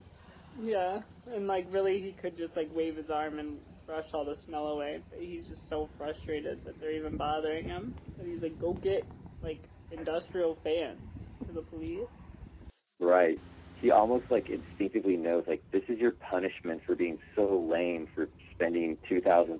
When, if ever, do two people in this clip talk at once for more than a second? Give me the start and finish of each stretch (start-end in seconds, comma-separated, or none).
none